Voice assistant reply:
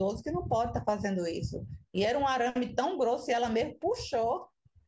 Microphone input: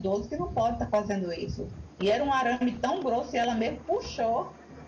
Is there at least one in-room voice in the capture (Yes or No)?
No